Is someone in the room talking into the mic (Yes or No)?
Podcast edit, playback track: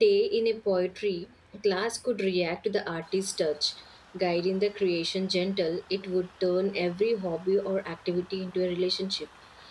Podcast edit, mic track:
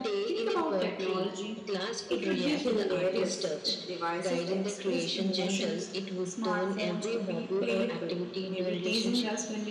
Yes